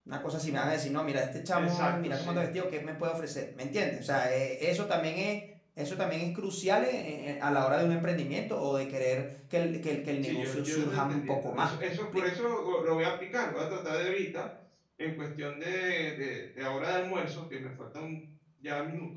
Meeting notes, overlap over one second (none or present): present